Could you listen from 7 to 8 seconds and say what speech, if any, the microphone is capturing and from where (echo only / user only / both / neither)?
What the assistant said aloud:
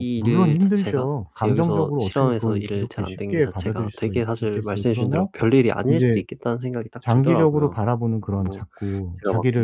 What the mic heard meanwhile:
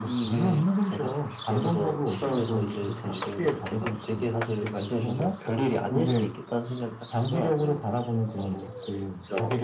echo only